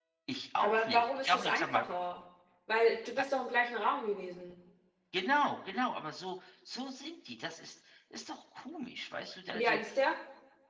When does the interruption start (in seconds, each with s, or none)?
0.6 s